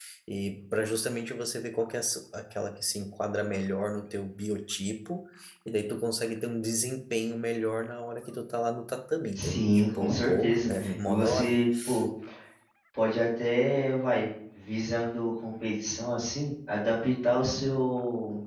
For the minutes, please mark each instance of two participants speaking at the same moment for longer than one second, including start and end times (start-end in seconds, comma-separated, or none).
9.4-11.6